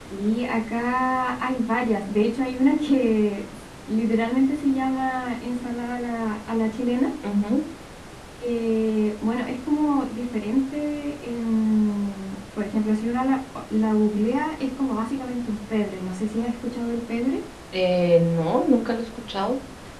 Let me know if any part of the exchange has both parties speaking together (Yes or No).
No